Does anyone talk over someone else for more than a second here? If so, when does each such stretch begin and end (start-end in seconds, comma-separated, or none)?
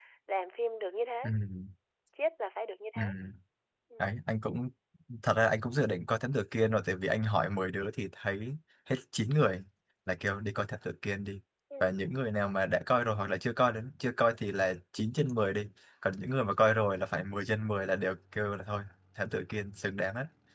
none